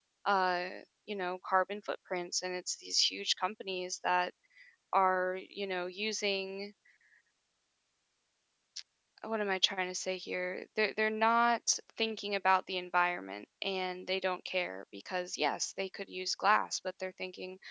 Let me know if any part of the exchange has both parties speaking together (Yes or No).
No